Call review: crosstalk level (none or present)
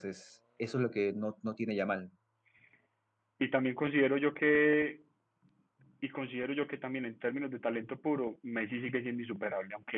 none